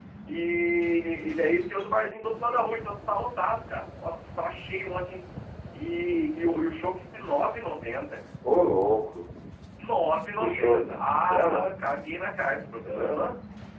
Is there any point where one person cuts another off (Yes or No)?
Yes